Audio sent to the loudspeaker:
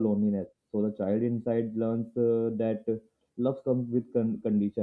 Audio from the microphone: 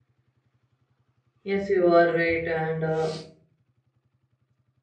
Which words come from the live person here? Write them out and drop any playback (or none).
yes you are right and uh,